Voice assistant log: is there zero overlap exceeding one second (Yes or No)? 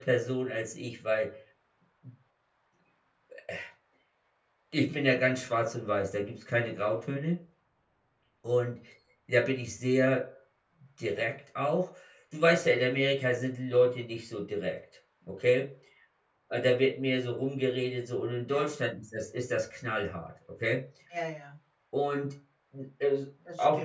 Yes